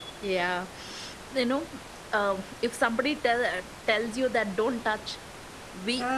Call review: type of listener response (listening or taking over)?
listening